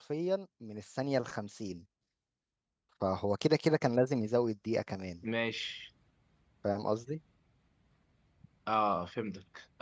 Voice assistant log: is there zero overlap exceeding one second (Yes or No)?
Yes